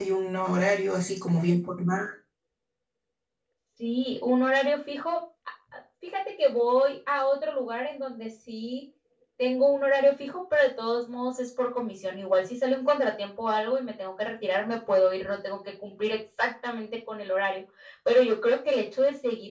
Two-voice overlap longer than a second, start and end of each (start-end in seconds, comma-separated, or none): none